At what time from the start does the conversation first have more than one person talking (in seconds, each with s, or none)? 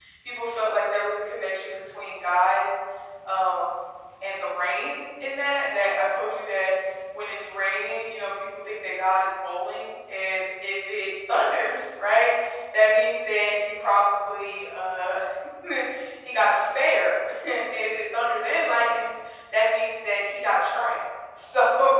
none